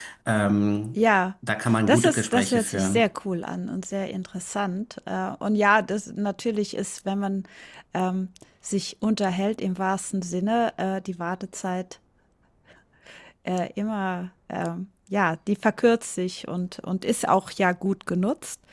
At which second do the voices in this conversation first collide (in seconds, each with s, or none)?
1.9 s